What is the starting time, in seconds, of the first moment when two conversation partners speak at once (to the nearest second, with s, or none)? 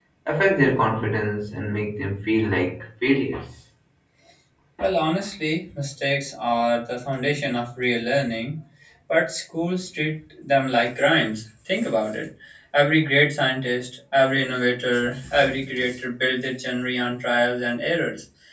none